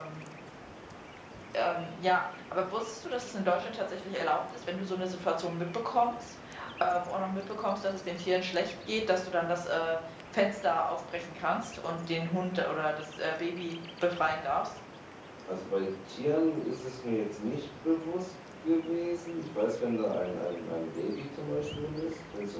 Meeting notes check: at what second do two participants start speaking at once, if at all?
none

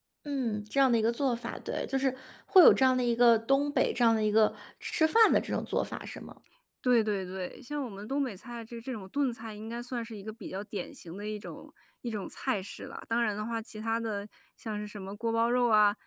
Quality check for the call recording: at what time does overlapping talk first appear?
none

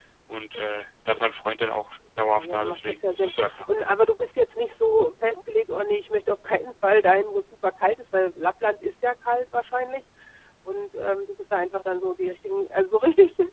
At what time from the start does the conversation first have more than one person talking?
2.3 s

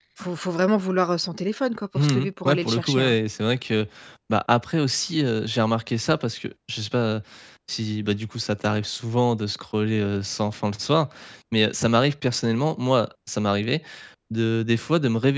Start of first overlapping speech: 2.0 s

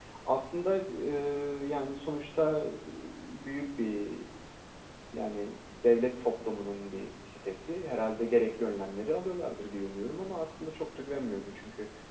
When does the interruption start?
none

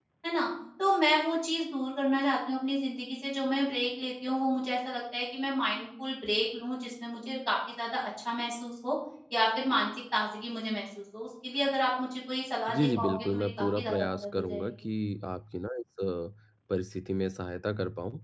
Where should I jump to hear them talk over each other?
12.7 s

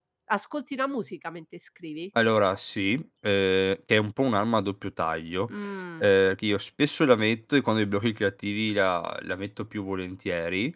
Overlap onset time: none

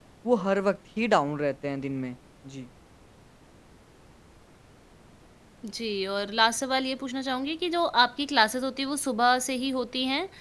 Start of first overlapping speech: none

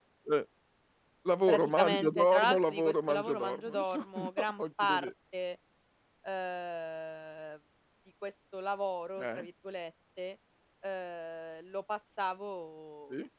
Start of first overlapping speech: 1.5 s

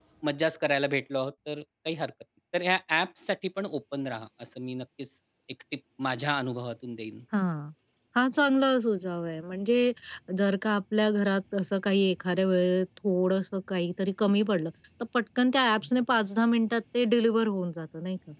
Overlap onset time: none

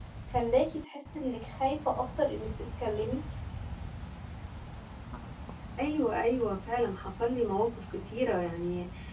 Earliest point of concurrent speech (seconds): none

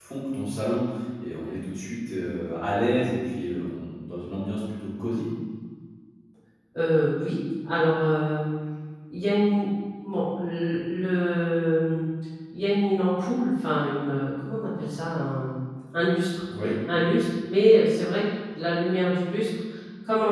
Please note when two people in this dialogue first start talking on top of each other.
none

